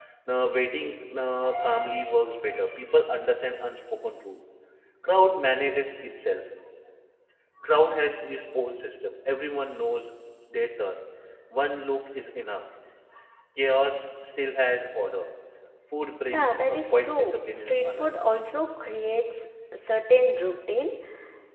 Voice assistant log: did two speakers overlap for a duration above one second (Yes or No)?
Yes